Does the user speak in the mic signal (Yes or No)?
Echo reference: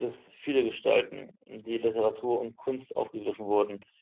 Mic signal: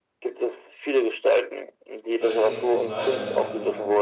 Yes